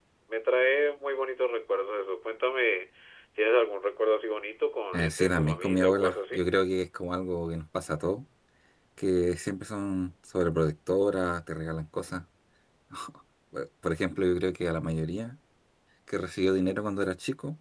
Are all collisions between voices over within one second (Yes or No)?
No